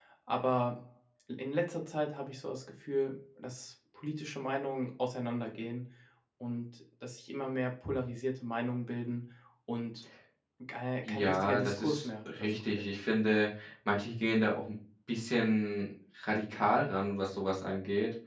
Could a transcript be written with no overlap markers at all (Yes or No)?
No